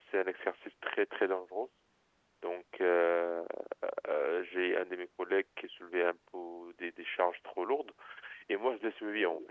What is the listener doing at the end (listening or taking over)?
listening